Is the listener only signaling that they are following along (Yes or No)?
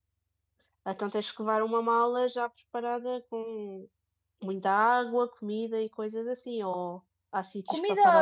No